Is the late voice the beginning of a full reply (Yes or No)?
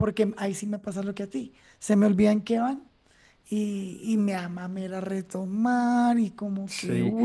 Yes